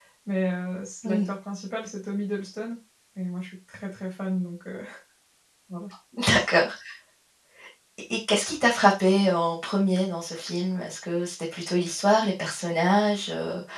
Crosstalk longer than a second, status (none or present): none